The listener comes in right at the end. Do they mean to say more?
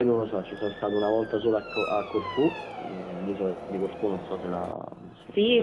Yes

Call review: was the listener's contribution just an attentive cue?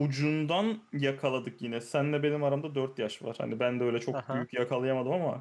Yes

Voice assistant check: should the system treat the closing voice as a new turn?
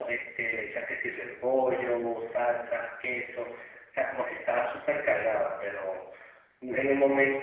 No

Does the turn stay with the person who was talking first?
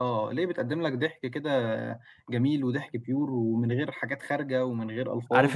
No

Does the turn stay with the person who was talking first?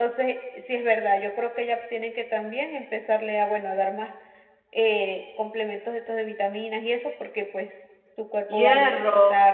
No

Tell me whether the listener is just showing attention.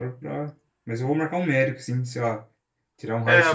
No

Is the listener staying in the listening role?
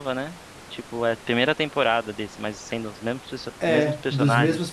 No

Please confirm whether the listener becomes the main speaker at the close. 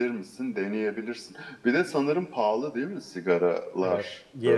Yes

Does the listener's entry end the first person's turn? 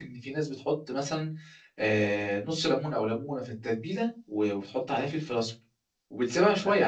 No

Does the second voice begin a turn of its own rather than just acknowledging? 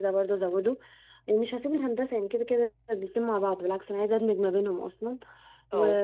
No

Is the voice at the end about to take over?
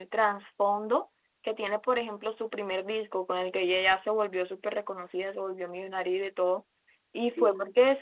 No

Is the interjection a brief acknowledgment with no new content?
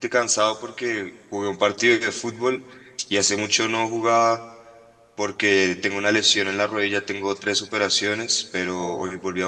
Yes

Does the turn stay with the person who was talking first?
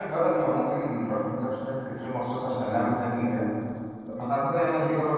Yes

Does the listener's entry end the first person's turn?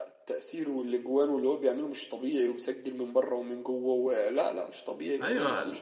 Yes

